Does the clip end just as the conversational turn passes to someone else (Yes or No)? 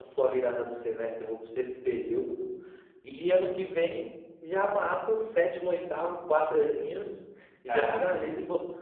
No